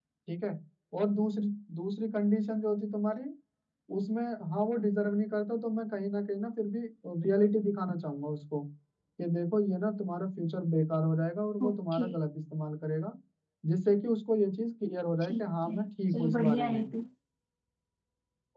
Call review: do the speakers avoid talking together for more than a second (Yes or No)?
No